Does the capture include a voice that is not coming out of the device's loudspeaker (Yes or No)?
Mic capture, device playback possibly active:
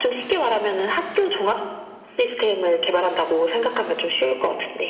No